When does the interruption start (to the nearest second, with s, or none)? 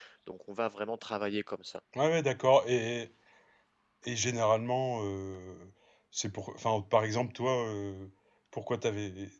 none